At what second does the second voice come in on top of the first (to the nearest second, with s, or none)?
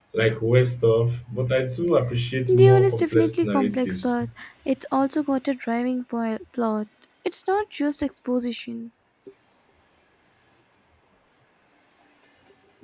2 s